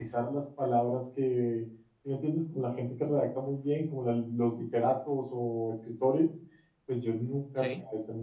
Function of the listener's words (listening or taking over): listening